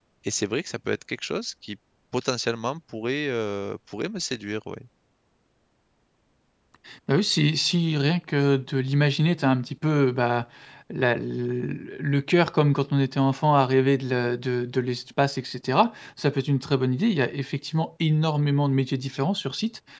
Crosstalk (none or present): none